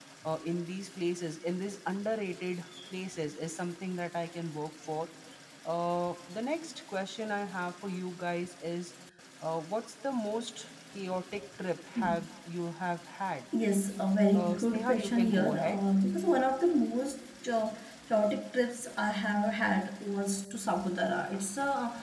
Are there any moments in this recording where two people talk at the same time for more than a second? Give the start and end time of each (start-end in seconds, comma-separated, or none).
14.3-15.8